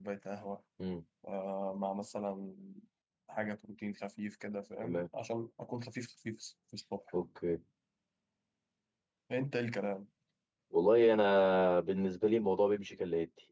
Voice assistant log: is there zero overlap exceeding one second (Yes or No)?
Yes